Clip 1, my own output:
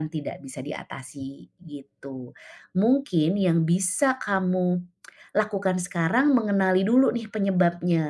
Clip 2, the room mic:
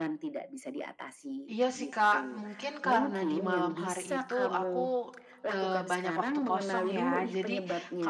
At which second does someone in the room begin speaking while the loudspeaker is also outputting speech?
1.5 s

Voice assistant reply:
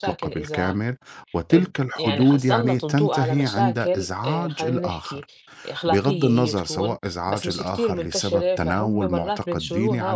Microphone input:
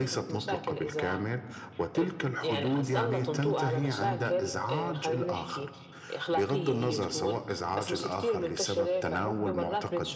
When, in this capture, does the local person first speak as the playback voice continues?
none

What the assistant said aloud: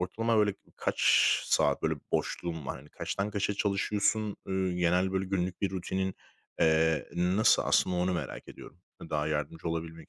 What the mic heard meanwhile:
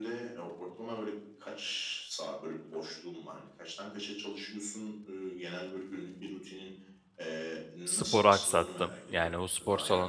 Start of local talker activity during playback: 7.8 s

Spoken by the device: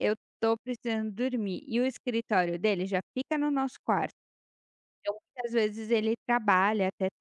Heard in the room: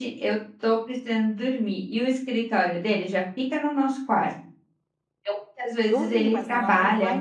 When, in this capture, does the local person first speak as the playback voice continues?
5.9 s

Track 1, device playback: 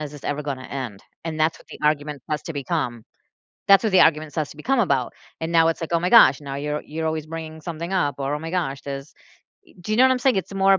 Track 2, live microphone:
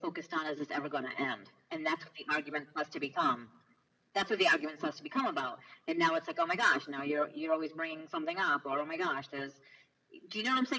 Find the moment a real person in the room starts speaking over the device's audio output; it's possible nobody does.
none

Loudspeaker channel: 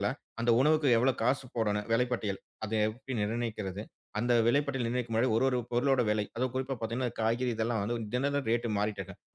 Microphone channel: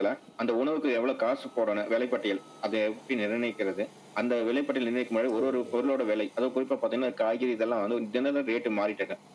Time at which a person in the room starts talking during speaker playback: 5.3 s

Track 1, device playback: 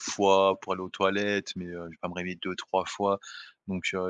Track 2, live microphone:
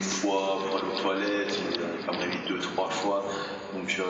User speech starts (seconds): none

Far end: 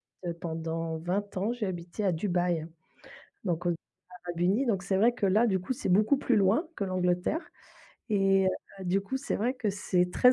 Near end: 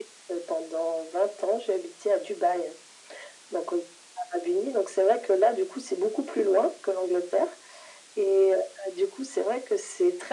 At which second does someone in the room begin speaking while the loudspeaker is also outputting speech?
none

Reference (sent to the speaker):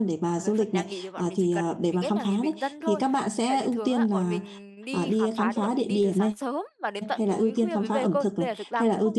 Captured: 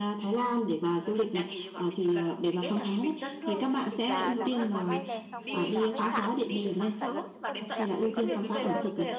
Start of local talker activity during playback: 3.3 s

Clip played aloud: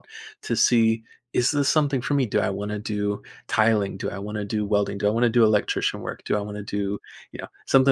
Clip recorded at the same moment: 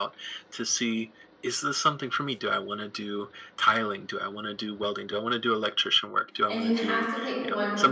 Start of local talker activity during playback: 6.4 s

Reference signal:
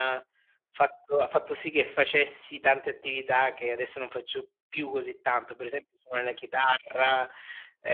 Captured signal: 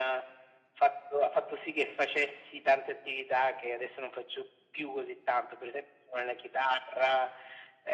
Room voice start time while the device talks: none

